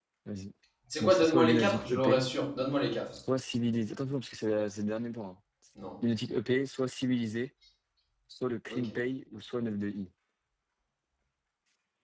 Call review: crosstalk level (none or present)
present